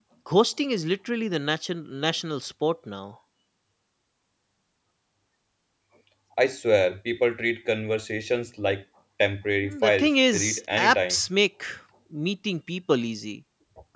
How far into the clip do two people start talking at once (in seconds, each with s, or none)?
9.6 s